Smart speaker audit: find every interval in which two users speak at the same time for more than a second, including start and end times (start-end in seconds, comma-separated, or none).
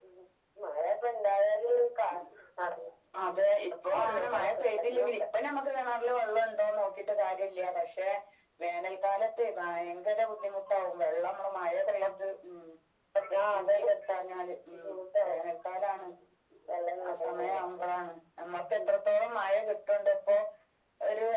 3.9-5.1